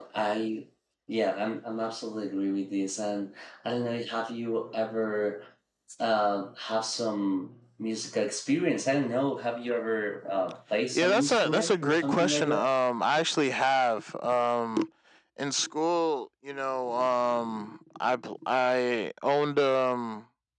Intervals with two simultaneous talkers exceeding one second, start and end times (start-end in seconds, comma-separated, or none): 10.9-12.7